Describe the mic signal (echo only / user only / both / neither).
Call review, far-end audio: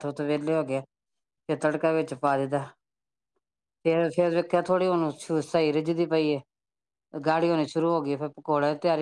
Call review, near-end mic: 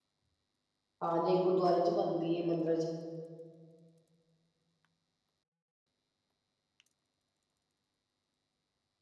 user only